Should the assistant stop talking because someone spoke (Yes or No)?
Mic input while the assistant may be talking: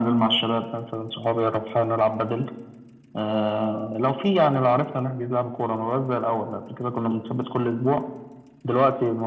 No